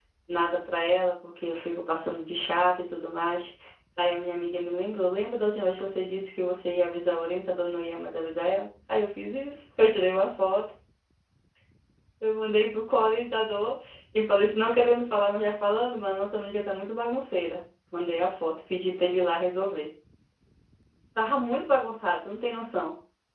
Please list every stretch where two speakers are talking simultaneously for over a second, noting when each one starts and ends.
none

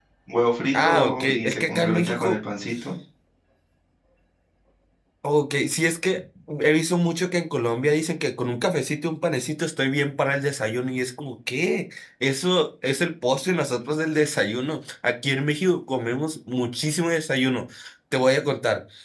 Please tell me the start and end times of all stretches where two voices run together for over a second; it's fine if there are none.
0.8-2.4

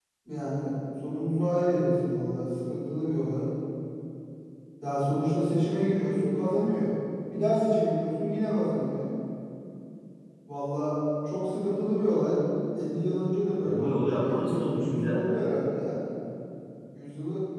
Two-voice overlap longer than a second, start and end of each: 13.6-15.2

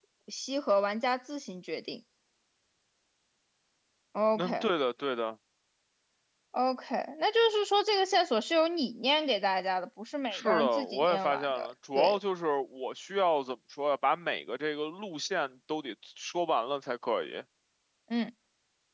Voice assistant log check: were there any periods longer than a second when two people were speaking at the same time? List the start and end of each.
10.3-12.2

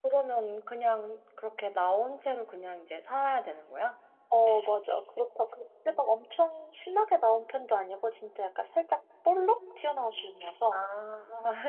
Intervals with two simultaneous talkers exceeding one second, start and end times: none

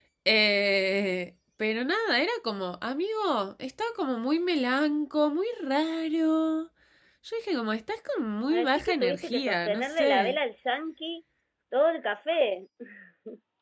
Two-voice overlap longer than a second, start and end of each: 8.5-10.4

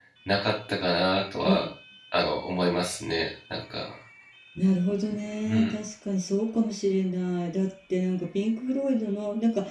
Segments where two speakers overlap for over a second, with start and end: none

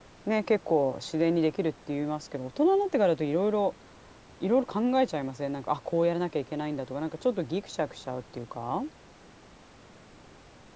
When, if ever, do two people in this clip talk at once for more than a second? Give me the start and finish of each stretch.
none

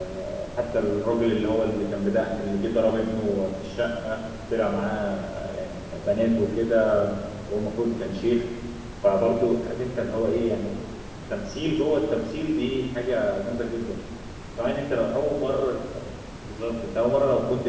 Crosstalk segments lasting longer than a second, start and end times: none

